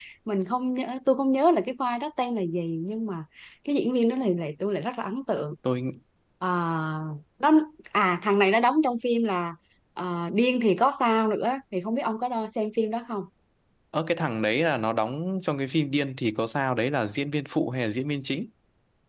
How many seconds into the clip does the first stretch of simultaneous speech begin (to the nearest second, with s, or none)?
none